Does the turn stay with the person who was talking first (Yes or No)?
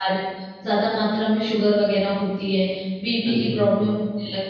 Yes